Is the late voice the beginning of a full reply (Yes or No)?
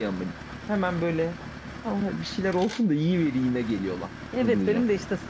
Yes